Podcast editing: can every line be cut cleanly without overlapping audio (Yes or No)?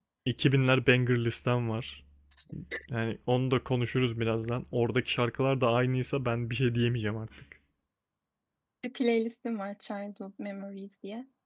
Yes